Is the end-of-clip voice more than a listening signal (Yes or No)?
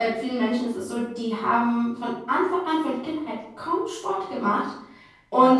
No